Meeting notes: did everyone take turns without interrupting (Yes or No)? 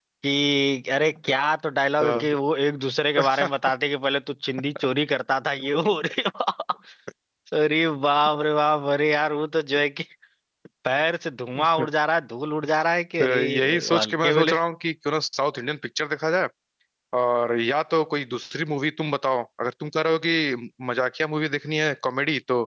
No